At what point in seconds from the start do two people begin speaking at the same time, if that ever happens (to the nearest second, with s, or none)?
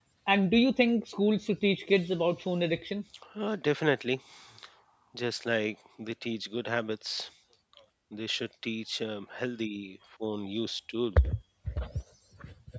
none